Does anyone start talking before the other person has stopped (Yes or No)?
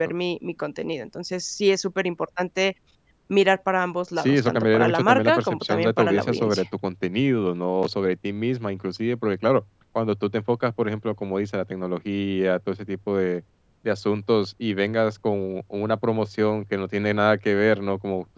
Yes